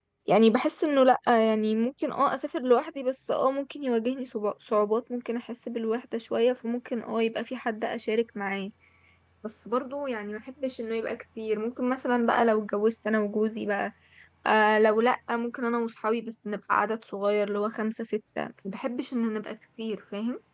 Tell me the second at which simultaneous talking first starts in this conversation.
none

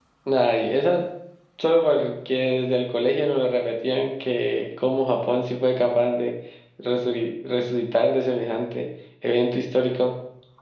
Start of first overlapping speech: none

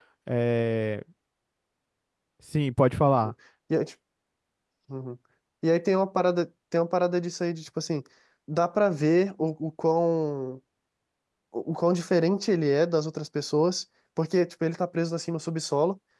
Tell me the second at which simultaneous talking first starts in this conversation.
none

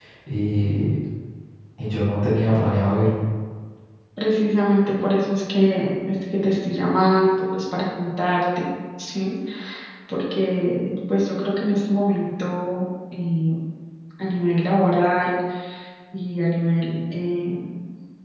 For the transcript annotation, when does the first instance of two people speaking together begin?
none

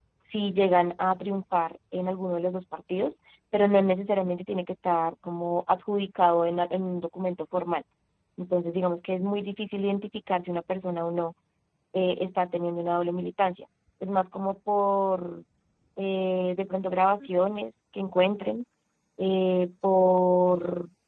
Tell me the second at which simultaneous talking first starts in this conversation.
none

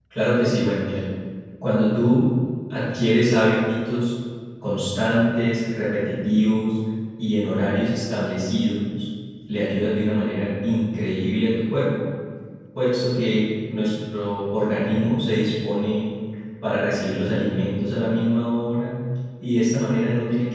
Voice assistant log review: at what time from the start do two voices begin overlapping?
none

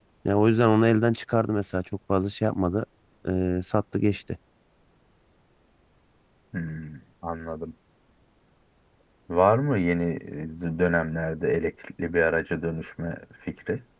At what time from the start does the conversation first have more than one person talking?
none

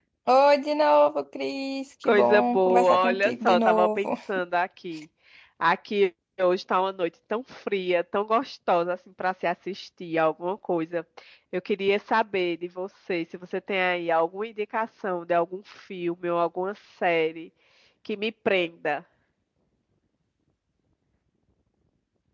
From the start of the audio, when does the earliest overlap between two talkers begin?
2.0 s

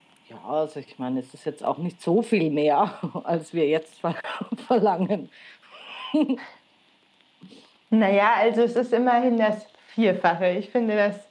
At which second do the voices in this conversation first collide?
none

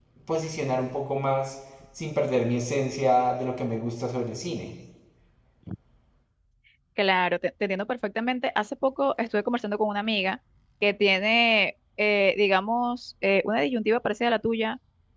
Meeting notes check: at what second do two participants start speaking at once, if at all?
none

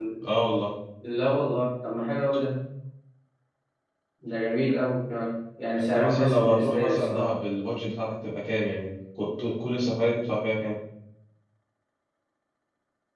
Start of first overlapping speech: 5.8 s

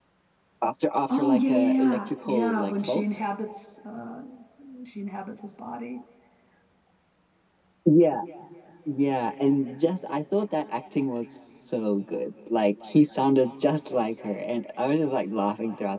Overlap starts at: 1.1 s

